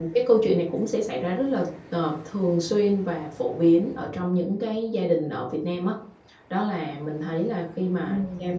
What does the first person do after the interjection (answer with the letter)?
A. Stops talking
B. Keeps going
B